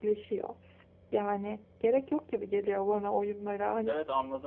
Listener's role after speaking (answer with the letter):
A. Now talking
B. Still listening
A